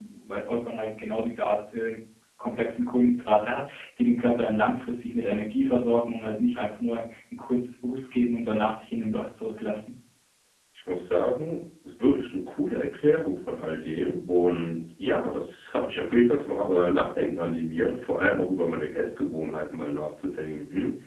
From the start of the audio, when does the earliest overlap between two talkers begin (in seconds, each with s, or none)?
none